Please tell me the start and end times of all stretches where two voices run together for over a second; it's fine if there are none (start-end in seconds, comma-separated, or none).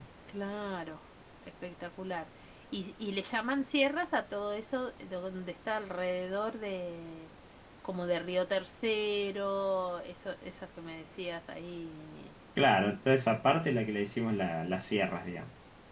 none